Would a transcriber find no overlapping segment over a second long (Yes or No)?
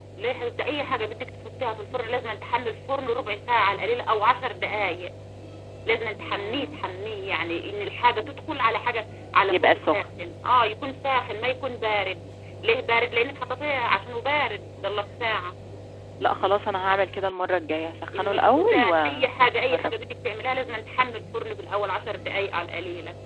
No